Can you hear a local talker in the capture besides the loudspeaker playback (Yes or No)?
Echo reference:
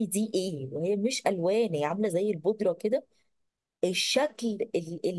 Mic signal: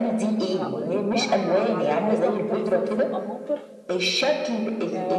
Yes